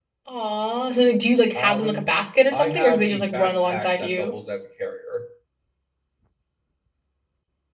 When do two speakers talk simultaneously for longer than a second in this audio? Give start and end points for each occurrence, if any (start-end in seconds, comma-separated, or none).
2.5-4.3